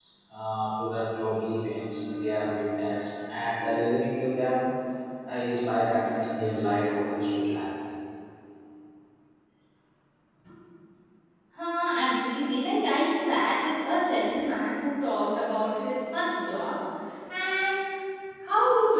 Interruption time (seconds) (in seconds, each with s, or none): none